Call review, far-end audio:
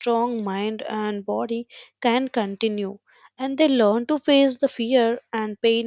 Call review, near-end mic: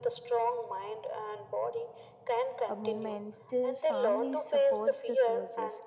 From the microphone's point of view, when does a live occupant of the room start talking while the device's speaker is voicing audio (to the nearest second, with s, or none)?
3 s